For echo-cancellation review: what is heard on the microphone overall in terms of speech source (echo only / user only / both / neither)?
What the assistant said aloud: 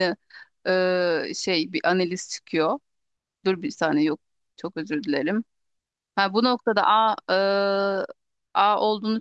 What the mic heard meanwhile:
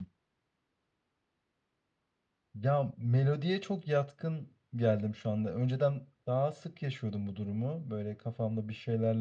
user only